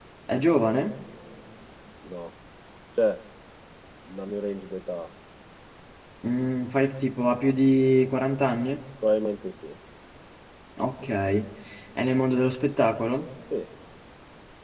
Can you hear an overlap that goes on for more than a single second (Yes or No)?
No